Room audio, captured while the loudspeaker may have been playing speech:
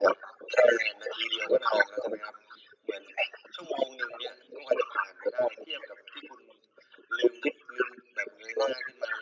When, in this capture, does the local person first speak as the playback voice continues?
none

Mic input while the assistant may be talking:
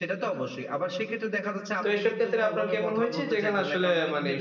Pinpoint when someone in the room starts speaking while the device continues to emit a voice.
1.8 s

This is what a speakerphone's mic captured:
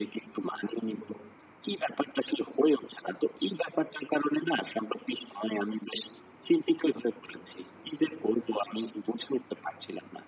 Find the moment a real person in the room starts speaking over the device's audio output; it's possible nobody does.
none

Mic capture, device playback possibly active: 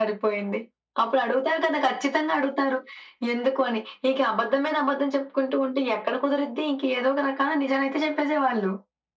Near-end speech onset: none

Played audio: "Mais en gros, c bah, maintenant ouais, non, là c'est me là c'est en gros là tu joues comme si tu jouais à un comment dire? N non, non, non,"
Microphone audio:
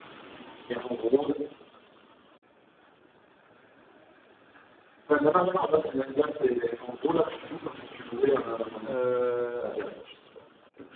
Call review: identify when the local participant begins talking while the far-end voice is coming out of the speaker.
8.8 s

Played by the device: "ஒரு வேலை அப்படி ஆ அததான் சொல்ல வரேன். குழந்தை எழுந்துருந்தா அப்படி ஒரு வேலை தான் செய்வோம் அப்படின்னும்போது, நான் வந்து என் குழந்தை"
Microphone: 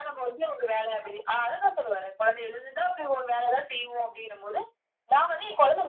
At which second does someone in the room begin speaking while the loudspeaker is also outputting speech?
none

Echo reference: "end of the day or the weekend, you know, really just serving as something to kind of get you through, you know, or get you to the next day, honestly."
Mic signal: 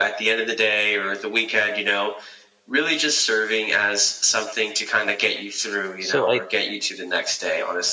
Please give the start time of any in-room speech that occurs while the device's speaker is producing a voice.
6.0 s

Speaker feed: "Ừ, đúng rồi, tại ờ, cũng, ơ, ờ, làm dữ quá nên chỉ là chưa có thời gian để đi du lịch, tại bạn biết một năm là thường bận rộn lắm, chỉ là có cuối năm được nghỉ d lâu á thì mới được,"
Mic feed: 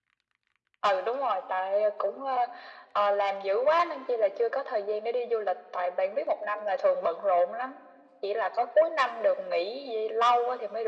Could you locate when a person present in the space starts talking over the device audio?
none

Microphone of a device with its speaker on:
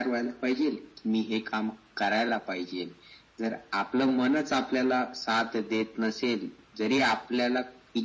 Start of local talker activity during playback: none

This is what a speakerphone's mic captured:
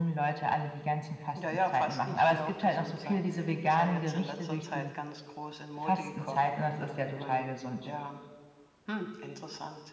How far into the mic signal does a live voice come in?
none

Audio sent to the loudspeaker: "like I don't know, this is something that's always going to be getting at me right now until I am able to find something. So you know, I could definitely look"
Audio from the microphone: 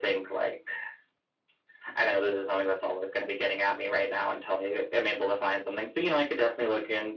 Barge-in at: none

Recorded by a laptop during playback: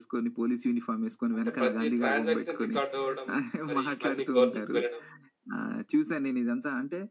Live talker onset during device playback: 1.4 s

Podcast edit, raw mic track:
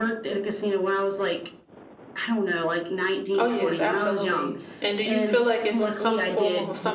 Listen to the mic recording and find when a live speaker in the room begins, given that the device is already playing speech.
3.4 s

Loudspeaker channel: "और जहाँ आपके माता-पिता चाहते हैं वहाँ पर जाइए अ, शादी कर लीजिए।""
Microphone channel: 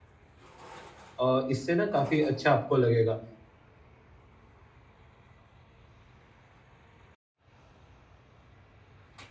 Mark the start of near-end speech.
1.3 s

